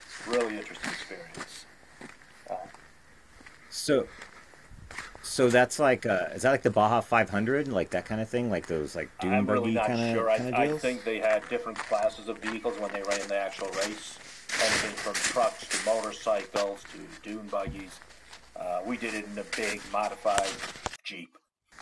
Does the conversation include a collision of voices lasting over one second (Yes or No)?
Yes